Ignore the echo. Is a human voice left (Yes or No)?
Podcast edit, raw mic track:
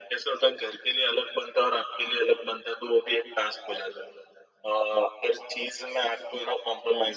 No